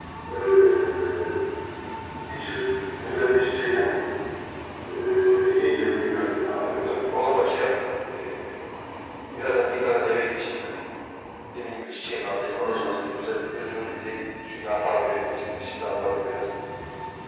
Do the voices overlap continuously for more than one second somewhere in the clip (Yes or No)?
No